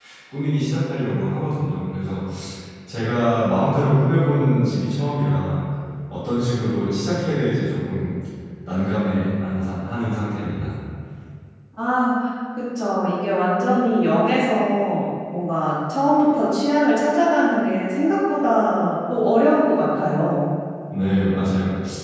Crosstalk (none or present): none